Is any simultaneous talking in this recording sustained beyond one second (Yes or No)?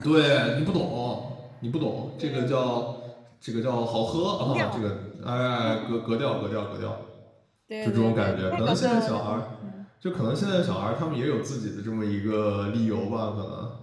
Yes